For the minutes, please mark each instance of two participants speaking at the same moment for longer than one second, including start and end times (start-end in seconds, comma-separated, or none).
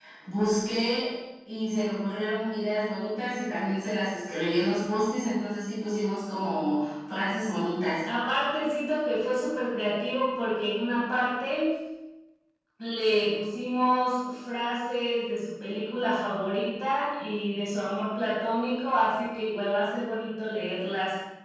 none